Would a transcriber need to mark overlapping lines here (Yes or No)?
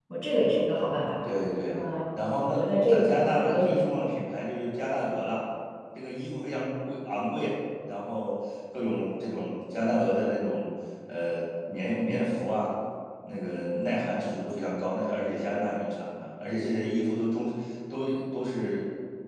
Yes